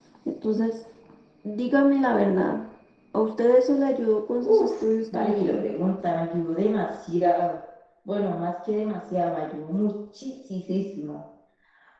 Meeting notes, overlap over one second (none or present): none